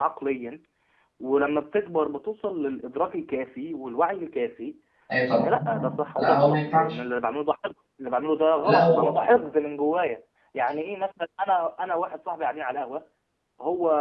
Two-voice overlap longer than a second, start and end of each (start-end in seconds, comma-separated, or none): 5.3-7.0